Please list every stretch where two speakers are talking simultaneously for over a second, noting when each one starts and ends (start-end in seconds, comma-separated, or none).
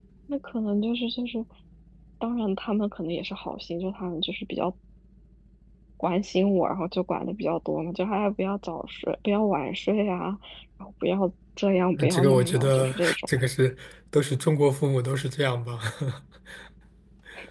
11.9-13.2